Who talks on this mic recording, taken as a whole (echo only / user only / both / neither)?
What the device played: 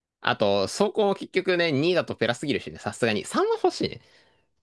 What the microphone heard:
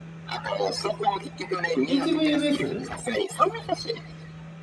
both